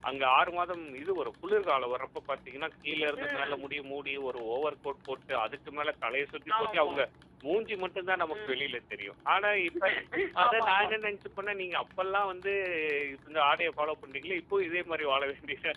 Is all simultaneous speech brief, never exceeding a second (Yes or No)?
Yes